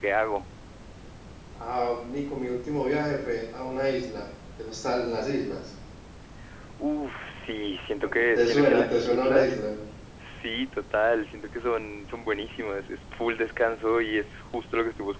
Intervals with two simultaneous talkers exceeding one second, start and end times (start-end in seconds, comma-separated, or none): 8.3-9.5